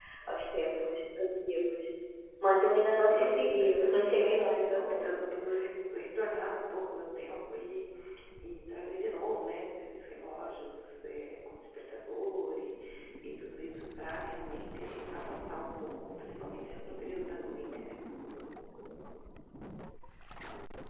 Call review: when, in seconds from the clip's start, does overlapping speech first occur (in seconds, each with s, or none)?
3.1 s